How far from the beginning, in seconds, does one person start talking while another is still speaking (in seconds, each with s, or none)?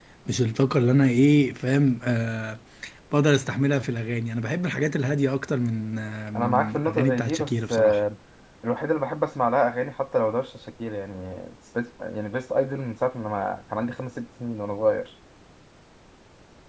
6.4 s